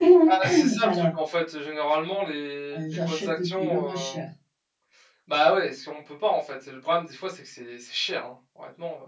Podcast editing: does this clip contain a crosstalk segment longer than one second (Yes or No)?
Yes